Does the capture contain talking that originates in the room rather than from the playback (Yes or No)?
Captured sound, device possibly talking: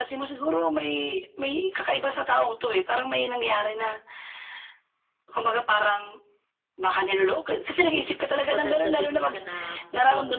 Yes